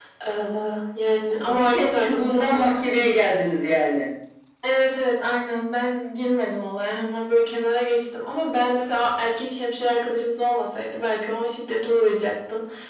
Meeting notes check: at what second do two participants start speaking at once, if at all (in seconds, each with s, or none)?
1.4 s